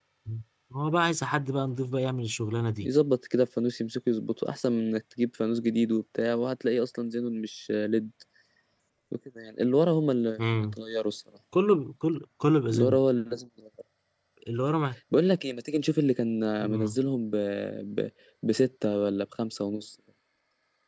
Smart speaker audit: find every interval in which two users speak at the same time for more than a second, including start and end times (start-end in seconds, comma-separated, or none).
none